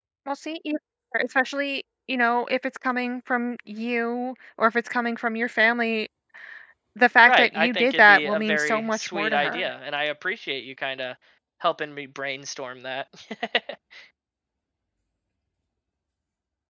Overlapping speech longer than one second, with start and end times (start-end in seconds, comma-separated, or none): 7.3-9.6